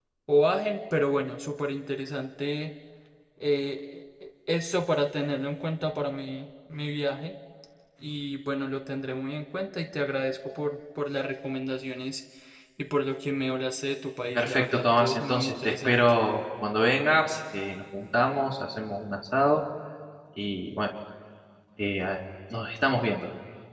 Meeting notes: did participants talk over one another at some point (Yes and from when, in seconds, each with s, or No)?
Yes, from 14.3 s